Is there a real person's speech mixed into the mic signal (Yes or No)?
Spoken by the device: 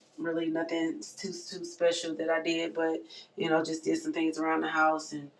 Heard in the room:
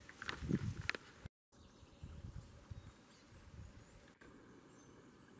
No